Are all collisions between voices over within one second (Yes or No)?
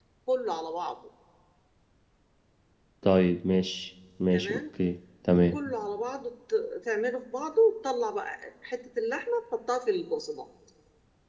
Yes